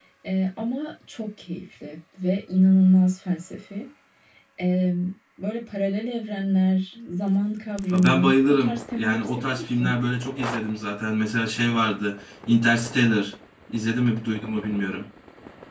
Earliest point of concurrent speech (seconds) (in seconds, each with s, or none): 7.9 s